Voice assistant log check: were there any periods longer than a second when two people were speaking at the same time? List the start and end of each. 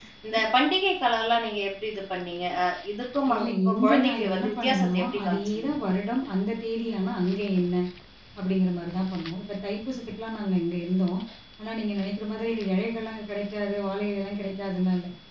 3.4-5.7

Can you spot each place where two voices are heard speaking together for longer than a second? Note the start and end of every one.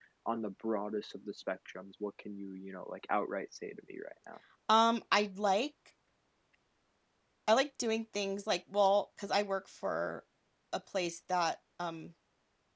none

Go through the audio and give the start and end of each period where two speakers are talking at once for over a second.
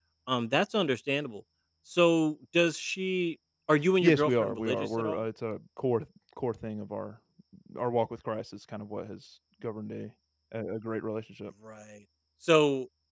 4.0-5.2

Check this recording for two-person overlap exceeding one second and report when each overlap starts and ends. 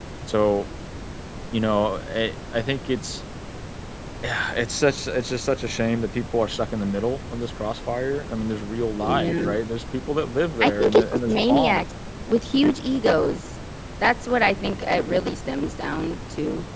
10.6-11.8

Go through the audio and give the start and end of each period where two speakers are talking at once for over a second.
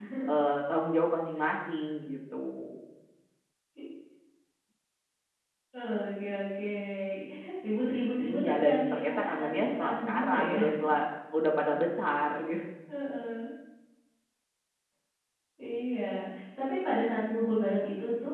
8.2-10.6

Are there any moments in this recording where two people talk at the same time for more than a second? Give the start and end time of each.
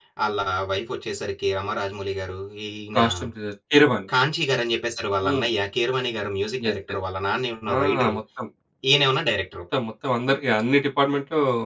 none

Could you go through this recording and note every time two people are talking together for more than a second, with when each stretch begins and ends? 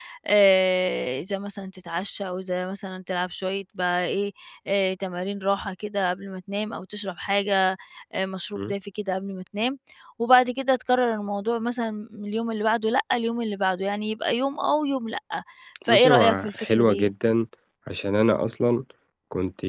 15.9-17.1

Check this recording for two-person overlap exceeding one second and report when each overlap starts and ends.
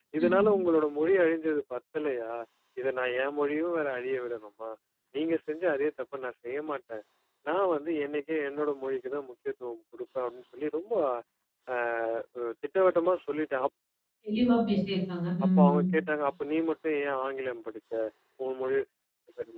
none

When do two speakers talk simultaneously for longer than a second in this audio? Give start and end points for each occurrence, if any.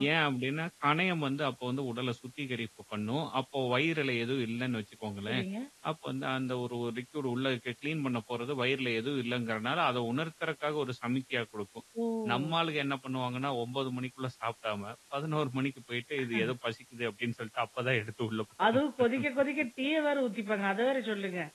none

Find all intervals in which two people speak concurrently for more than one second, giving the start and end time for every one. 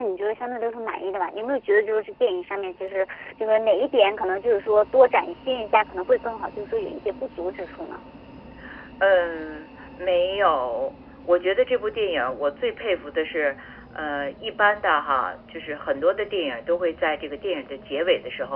none

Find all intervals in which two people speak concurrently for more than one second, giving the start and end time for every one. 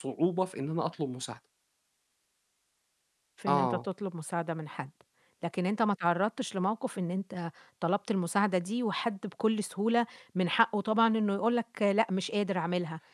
none

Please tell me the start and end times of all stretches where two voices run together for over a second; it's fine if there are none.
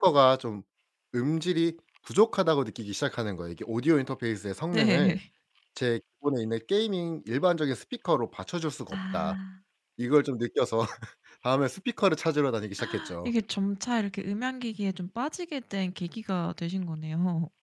none

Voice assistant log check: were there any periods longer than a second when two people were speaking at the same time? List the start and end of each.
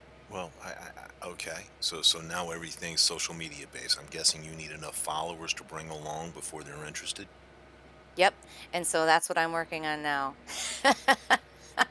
none

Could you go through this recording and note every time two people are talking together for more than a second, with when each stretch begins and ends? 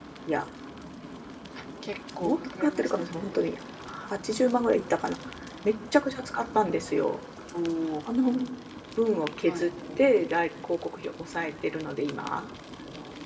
2.2-3.5

